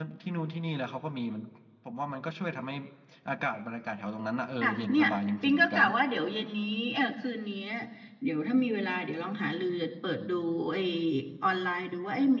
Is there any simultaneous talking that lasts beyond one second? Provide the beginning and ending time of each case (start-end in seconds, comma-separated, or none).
4.6-5.8